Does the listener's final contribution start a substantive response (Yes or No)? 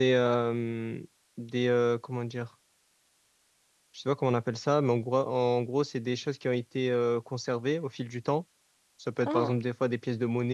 No